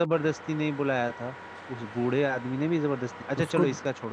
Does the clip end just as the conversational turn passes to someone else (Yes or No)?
No